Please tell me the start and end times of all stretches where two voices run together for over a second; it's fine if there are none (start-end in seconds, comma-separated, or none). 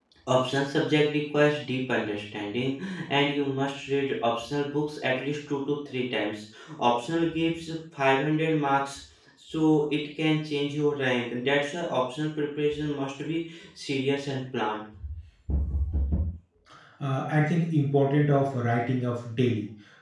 none